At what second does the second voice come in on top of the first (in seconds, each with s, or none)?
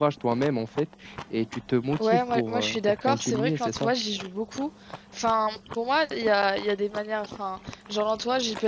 2.0 s